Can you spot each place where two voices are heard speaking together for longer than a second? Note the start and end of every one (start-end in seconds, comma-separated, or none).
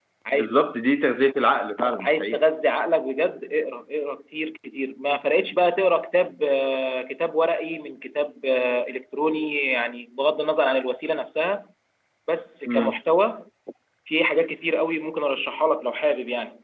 none